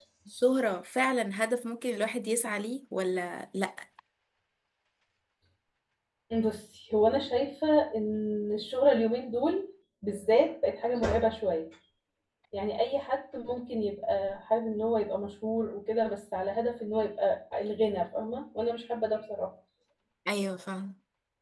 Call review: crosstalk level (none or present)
none